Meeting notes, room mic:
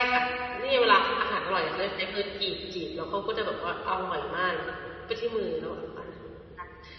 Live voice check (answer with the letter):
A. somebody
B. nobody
B